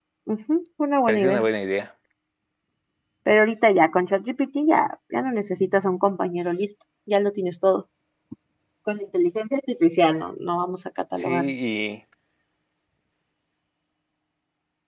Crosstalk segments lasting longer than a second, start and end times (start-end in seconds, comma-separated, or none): none